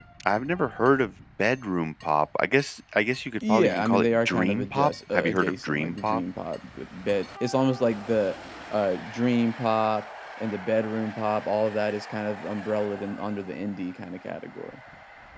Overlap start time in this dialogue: 3.4 s

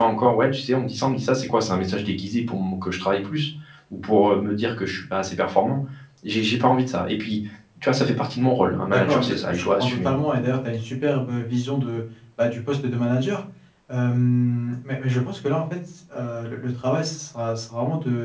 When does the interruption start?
8.9 s

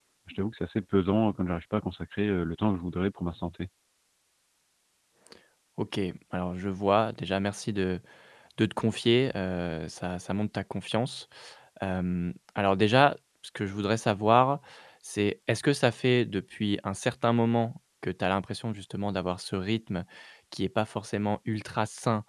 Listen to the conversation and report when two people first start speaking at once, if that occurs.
none

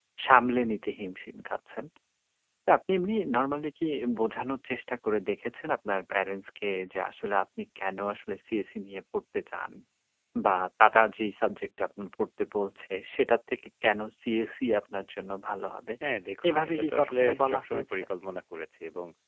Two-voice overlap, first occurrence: 16.5 s

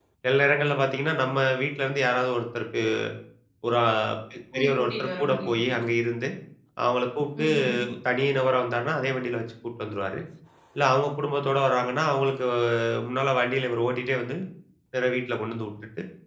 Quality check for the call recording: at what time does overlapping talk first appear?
4.5 s

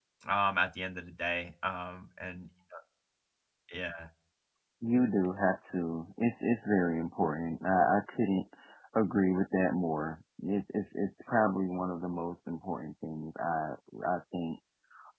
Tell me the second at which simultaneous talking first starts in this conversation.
none

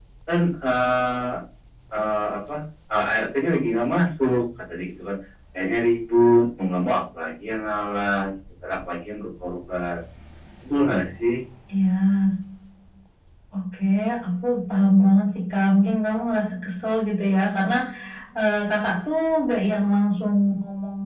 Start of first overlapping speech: none

